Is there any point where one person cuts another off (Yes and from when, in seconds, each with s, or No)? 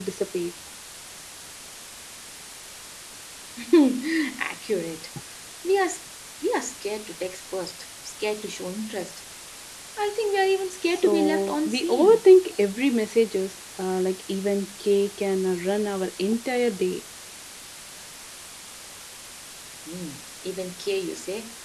Yes, from 11.0 s